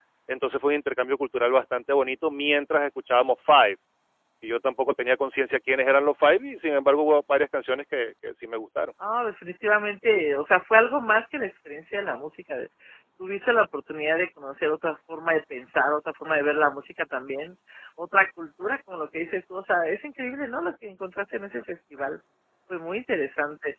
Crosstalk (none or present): none